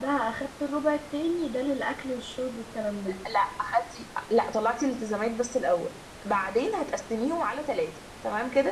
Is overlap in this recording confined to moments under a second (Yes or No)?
Yes